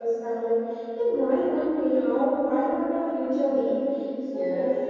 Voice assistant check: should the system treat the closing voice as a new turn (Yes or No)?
No